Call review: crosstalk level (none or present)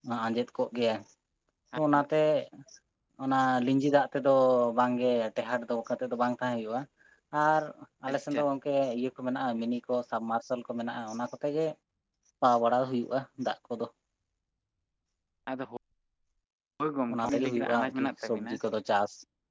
present